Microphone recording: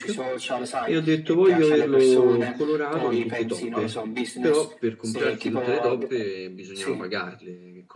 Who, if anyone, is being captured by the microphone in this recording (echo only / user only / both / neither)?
both